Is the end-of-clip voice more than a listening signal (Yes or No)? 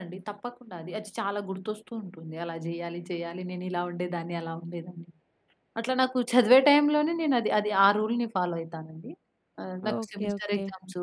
No